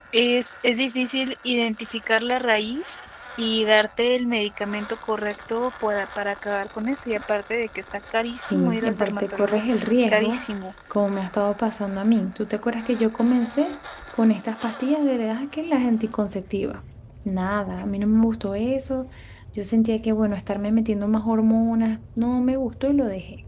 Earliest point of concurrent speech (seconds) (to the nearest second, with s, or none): 8 s